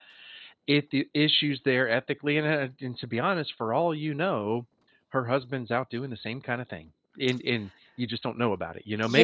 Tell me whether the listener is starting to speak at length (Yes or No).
Yes